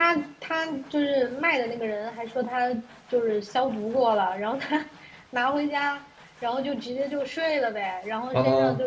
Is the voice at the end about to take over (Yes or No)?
No